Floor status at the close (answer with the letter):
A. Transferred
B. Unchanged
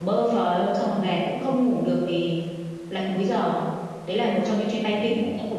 A